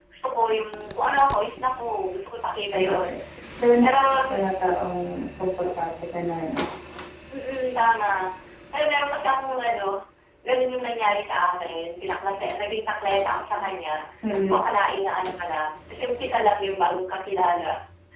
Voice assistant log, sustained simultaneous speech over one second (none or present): none